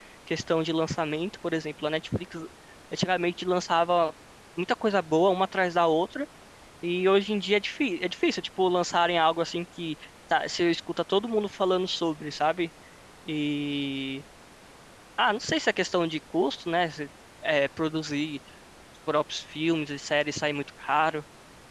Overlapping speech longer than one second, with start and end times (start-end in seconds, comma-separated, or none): none